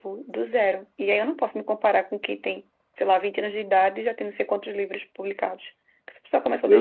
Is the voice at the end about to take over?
Yes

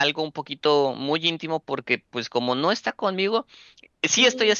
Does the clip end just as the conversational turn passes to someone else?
No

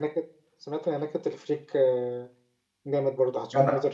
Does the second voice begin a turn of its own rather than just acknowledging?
Yes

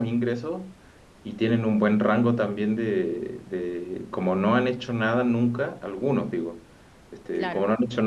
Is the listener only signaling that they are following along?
Yes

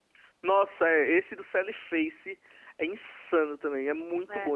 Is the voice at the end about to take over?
No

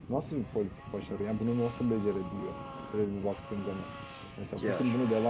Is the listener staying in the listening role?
Yes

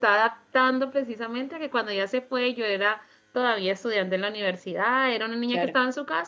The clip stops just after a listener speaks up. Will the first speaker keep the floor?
Yes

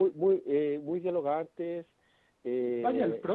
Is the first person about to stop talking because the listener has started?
Yes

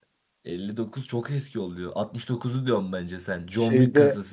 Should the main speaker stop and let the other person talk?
Yes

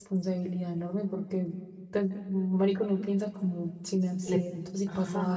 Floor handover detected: Yes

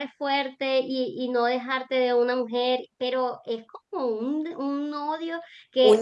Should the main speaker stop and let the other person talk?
Yes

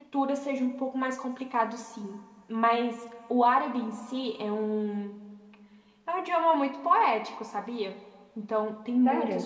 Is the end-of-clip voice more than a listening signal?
No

